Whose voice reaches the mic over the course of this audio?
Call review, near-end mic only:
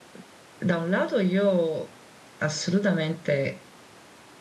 user only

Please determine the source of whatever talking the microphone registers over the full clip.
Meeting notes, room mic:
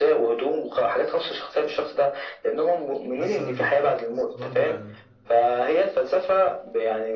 both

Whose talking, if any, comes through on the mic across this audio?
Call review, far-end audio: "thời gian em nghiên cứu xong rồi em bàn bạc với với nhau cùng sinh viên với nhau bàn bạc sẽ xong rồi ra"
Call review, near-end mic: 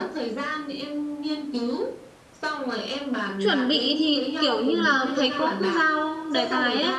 both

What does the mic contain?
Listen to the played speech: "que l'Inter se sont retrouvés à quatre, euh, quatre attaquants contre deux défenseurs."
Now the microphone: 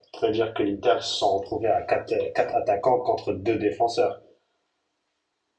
echo only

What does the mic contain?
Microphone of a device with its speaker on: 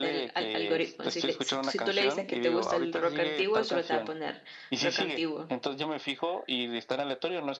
both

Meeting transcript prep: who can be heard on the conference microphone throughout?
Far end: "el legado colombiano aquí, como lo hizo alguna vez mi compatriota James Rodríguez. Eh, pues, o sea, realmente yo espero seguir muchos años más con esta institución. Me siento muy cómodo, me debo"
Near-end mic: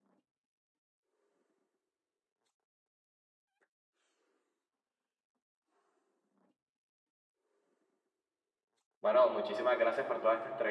user only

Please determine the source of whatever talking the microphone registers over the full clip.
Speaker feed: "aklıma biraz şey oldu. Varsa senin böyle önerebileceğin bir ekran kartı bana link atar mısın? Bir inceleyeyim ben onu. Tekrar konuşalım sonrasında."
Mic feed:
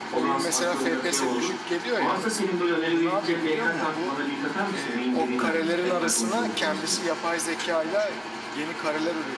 both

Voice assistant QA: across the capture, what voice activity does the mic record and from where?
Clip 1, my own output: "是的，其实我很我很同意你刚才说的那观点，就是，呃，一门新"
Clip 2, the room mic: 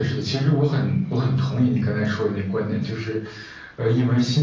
echo only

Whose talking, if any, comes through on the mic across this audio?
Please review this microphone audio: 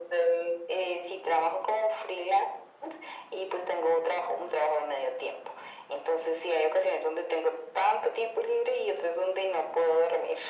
echo only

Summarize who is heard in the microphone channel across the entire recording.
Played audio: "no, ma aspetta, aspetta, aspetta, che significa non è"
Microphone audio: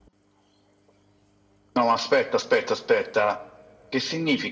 echo only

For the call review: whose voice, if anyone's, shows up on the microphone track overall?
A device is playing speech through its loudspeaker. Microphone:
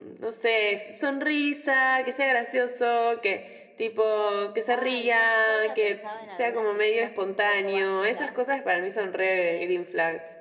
both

